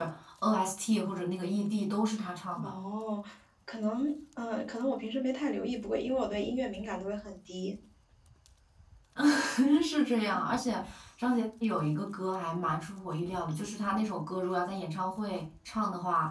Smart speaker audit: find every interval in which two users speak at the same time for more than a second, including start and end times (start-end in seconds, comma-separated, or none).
none